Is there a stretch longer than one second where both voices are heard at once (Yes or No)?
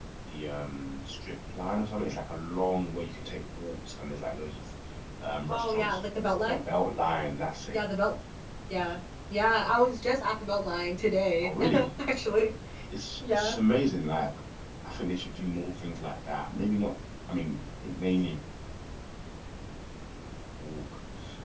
No